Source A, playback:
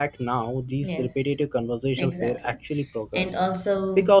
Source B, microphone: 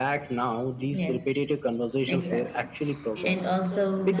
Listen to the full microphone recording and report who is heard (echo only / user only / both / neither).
both